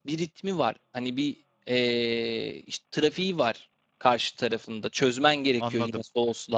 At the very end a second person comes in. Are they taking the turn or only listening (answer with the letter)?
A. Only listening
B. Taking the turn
B